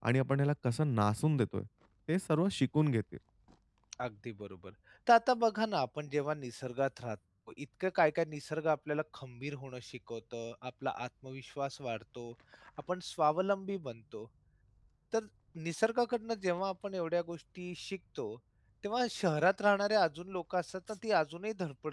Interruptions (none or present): none